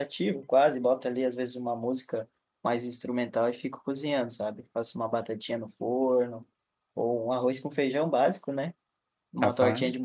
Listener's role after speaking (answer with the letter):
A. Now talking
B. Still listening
B